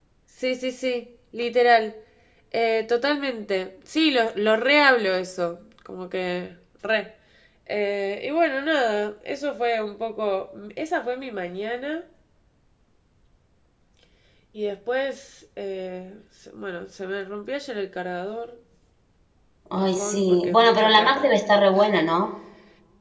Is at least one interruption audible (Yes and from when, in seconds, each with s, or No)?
Yes, from 19.7 s